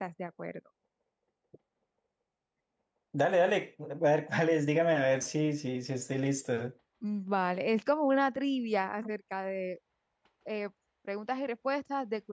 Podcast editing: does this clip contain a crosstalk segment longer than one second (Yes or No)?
No